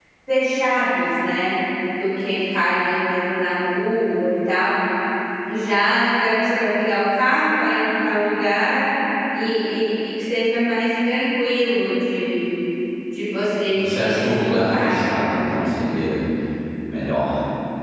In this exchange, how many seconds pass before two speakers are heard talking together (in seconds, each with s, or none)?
13.7 s